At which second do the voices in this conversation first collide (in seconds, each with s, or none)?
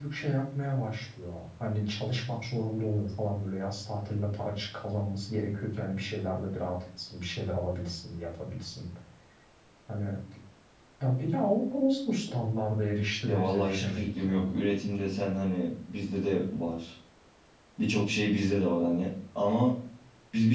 13.2 s